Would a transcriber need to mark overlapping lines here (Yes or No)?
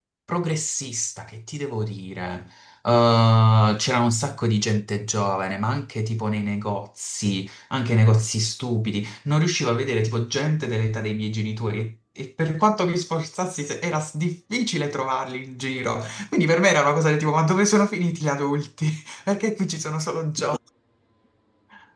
No